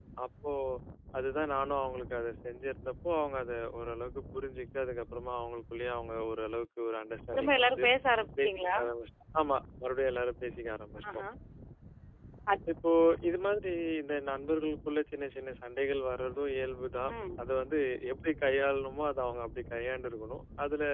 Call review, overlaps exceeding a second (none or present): none